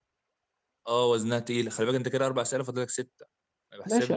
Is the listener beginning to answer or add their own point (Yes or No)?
Yes